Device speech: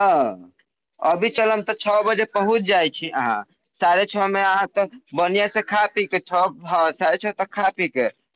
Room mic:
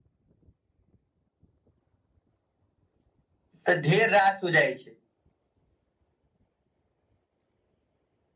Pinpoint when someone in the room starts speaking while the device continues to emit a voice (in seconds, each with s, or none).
3.6 s